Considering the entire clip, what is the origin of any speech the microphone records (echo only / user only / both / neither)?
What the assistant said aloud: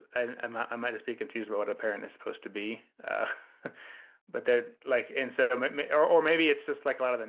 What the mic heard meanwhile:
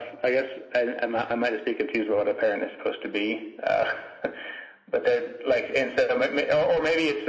echo only